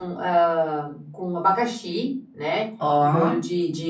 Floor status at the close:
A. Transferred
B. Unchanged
B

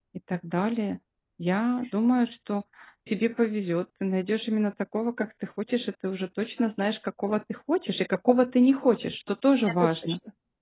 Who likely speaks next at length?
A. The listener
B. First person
A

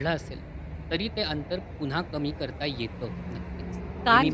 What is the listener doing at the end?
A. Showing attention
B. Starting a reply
B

